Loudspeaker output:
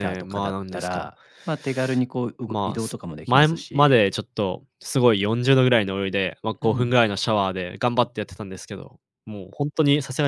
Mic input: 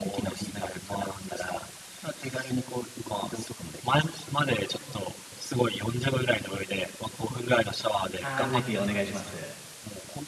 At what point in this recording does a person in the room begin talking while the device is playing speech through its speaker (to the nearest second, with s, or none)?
8 s